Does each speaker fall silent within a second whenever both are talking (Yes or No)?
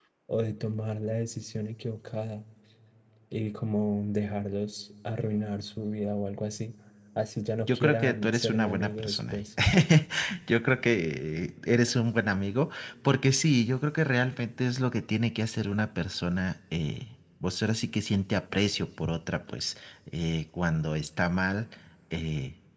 No